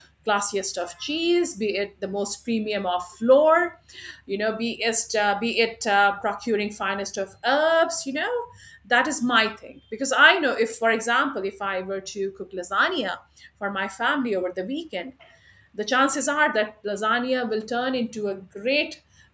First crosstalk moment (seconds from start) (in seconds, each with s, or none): none